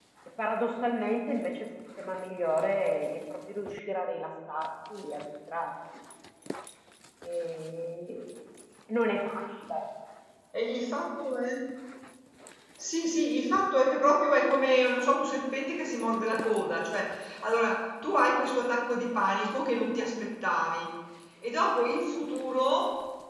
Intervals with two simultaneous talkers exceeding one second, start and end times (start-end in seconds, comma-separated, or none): none